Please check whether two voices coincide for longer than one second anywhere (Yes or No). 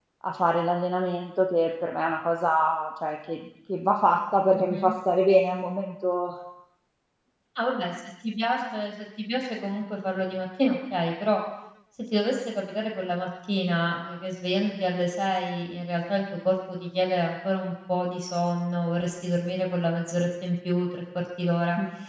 No